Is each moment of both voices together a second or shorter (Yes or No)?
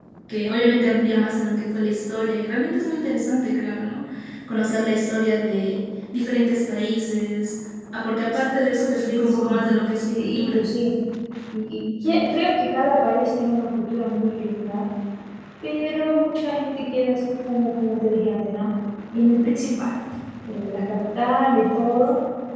Yes